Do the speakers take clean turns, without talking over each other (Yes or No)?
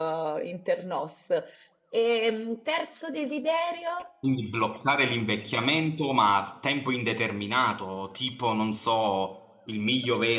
Yes